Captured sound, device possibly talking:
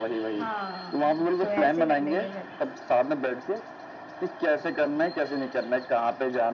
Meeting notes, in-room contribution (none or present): present